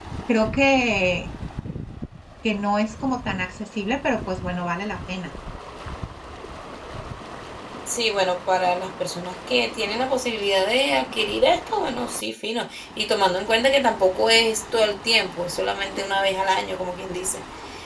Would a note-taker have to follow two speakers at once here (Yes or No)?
No